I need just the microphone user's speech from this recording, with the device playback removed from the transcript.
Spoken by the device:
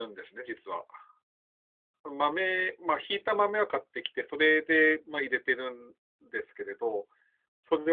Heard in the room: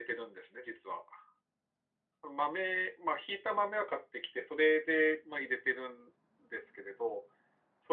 none

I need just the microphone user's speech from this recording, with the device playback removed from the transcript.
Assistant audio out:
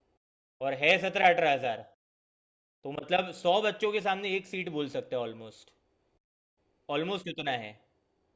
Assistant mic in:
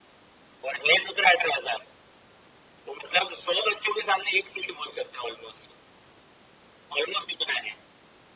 none

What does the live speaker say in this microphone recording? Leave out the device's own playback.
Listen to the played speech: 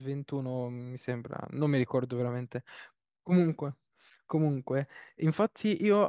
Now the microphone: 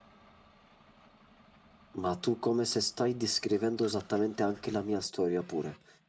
Ma tu come se stai descrivendo esattamente anche la mia storia pure.

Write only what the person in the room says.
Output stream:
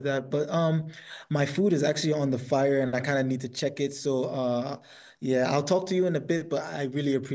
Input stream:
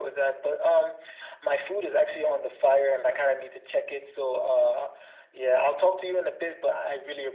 none

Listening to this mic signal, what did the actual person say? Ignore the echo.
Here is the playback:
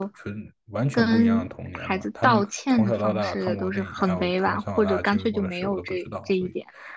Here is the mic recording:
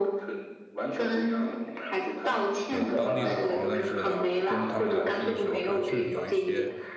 有当地的朋友，但是跟他们聊天的时候，还是有一些

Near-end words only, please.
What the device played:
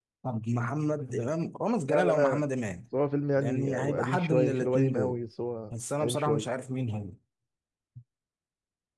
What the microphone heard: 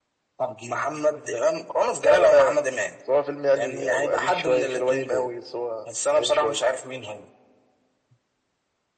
none

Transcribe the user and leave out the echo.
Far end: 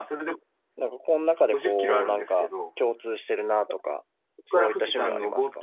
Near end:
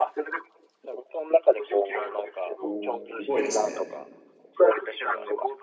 お、すごいですね。

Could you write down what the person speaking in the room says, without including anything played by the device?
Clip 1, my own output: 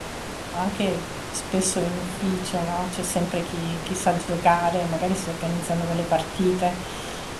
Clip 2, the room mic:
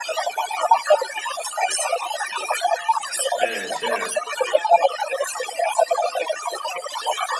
Eh, certo. certo.

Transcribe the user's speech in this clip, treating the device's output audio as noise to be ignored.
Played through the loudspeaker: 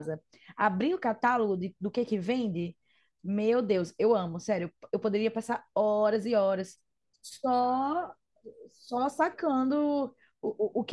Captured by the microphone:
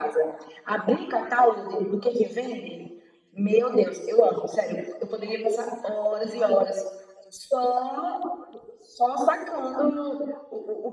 none

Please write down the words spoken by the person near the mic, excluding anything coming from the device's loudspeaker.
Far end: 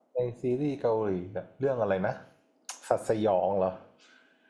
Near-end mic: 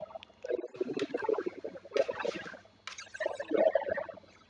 none

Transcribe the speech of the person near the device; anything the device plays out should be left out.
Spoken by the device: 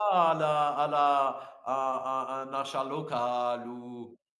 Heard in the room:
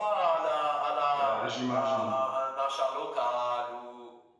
euh, j'imagine.

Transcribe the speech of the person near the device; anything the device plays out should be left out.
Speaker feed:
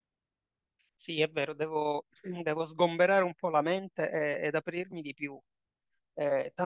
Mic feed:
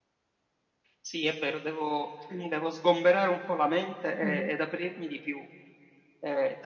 Mhm.

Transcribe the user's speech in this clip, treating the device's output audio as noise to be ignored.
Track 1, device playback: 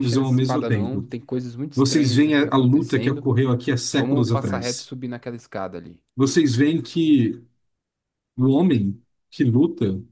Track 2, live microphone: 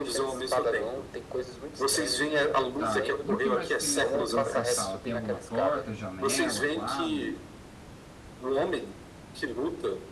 Tá. E o que mais que tem nesse, nessa sala? Tem alguma porta, janela, quadro?

